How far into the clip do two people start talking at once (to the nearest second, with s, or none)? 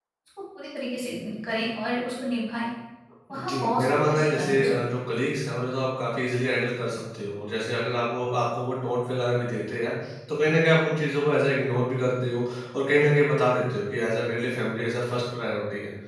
3 s